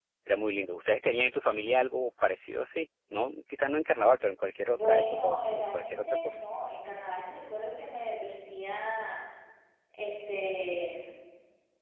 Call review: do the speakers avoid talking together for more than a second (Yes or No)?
No